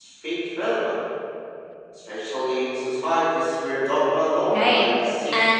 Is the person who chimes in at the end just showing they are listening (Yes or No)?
No